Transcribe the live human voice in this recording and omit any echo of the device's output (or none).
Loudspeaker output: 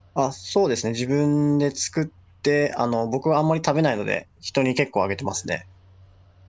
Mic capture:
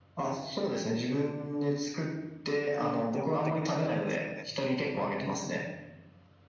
うんって思ってくれたらいいんですけどね。